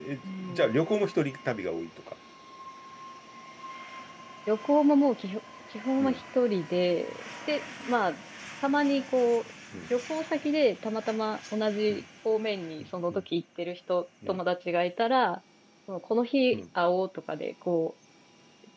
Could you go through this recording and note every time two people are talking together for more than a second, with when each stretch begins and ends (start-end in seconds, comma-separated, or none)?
none